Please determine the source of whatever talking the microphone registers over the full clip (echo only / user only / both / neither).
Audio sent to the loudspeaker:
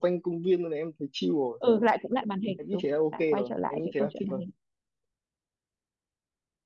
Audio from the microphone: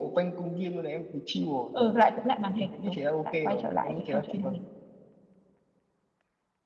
echo only